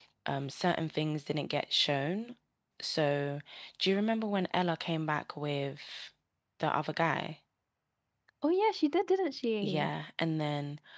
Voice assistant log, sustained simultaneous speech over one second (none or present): none